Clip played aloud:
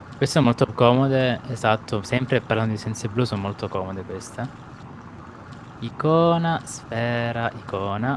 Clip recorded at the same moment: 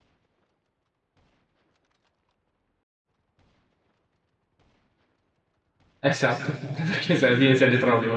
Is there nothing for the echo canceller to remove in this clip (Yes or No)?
Yes